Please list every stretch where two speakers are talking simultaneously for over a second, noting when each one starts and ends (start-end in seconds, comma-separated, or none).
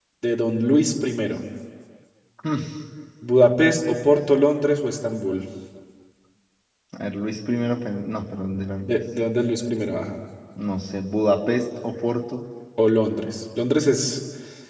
none